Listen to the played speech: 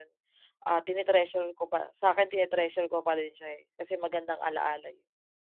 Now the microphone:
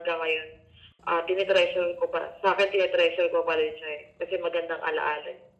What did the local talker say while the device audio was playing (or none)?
none